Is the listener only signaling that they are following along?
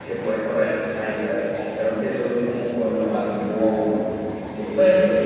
No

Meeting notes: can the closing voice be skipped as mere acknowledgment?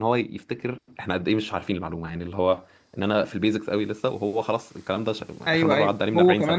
No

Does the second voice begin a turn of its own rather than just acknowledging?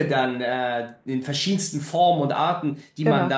No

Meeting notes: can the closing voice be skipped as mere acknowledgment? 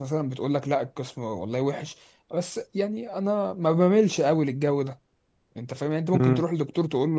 Yes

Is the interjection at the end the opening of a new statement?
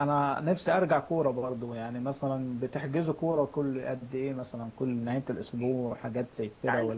Yes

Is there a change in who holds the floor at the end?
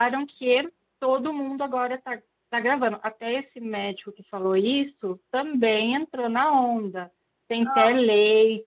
No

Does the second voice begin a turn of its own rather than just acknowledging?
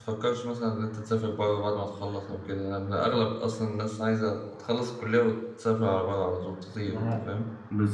Yes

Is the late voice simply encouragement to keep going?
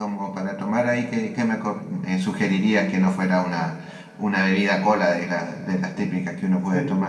No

